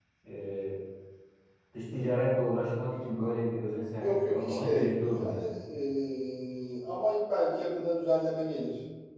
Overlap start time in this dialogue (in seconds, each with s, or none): 4.0 s